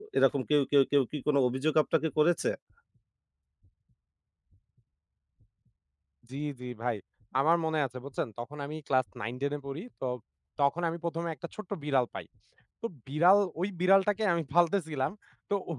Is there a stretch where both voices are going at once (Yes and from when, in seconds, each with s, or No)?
No